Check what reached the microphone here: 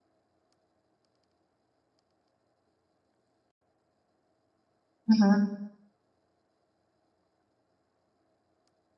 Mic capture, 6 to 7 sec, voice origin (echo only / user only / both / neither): neither